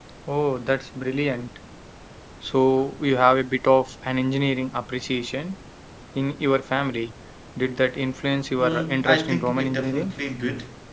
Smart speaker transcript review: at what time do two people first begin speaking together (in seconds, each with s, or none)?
8.6 s